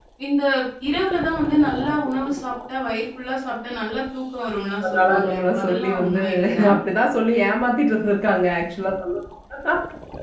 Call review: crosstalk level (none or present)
present